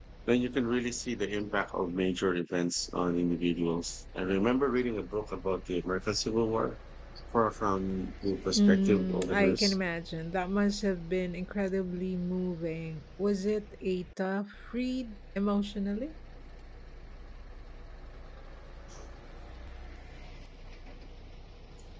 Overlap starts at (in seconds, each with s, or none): 8.6 s